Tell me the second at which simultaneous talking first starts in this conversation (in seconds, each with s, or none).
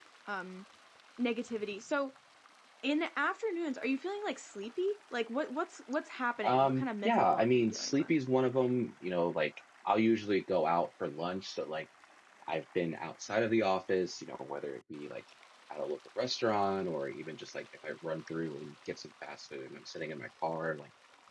6.4 s